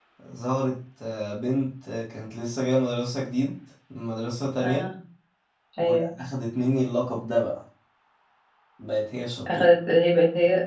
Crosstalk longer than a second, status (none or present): none